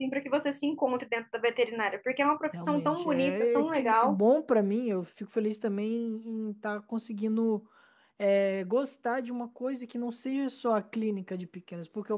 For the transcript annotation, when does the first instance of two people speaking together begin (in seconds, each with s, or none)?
2.5 s